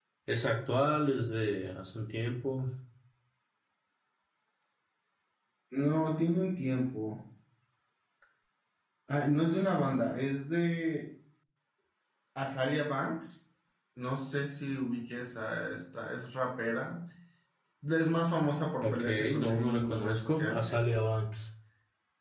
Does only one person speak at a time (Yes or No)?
No